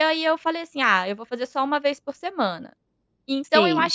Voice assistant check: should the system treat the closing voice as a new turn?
No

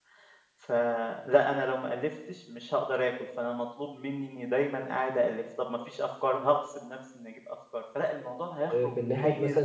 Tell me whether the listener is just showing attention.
No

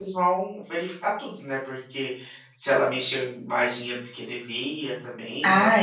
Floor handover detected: Yes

